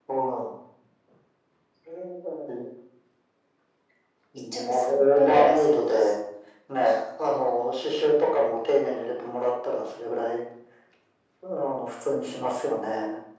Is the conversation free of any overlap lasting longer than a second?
No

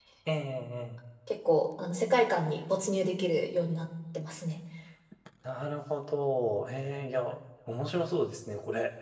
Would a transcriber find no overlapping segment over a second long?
Yes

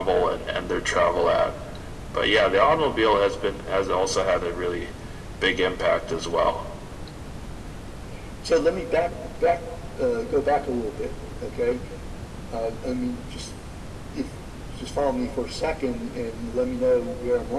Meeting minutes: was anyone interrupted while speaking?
No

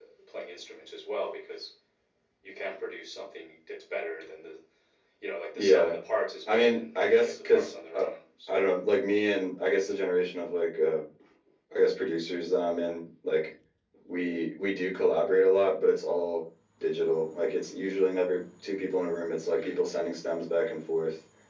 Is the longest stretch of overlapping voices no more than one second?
No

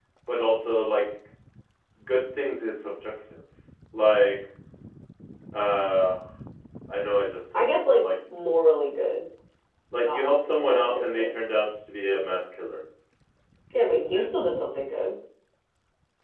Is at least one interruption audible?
Yes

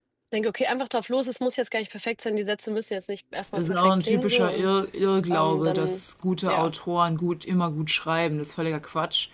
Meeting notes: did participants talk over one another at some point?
Yes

